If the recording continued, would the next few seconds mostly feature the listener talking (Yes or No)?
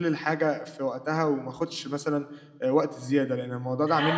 Yes